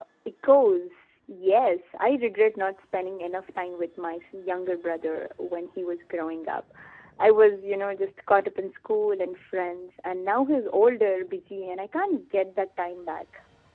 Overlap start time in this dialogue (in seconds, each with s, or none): none